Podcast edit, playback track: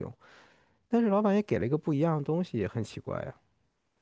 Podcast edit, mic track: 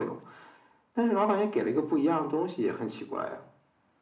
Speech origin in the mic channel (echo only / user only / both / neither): echo only